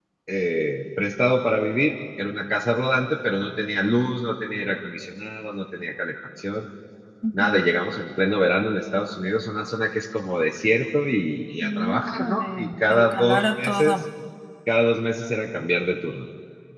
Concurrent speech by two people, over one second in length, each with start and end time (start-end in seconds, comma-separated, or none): 11.6-14.0